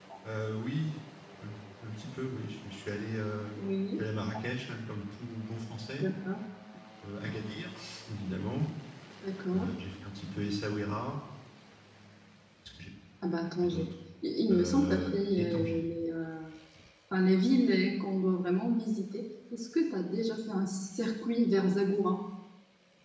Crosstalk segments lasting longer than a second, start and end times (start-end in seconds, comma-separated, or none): 14.5-15.8